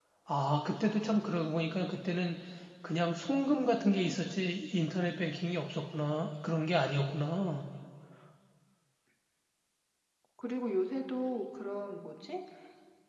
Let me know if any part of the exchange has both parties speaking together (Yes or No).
No